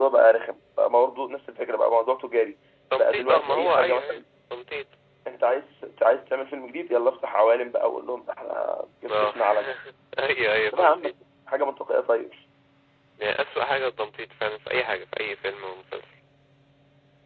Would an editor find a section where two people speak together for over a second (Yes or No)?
Yes